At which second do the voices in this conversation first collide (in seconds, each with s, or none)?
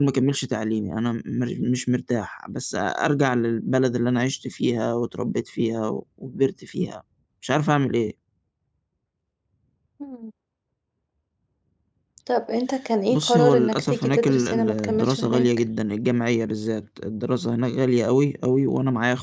13.1 s